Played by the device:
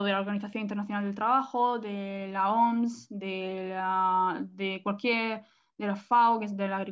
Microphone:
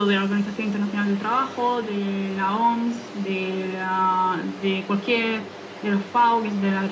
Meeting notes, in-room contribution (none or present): none